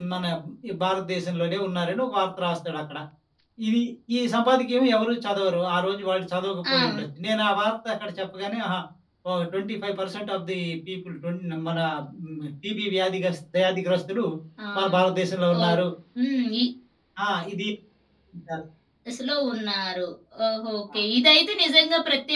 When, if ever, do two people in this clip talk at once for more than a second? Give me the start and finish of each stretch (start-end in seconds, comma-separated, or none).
none